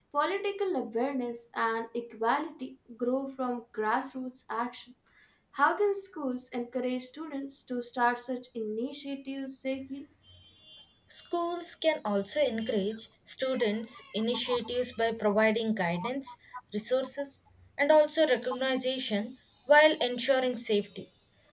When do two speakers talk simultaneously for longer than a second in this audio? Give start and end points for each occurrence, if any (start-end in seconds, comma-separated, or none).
none